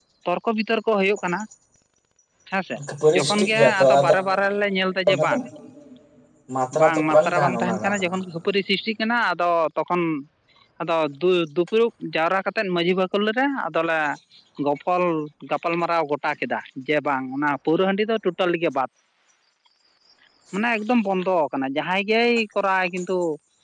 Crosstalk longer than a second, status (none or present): present